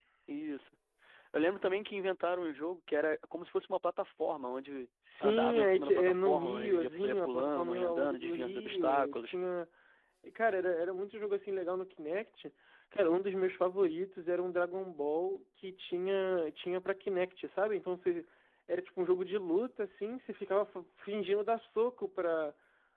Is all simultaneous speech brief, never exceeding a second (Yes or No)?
No